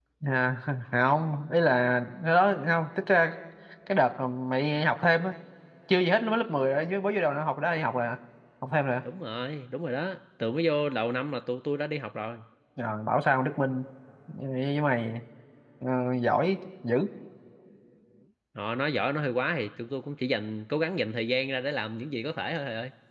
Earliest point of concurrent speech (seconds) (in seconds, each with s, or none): none